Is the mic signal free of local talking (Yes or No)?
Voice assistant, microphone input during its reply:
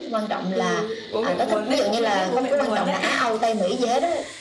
No